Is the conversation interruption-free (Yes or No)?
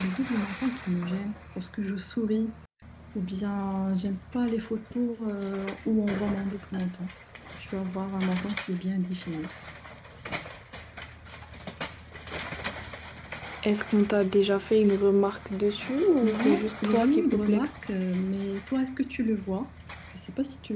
No